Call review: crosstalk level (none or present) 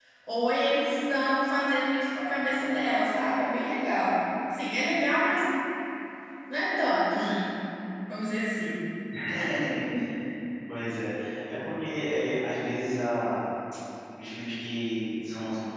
none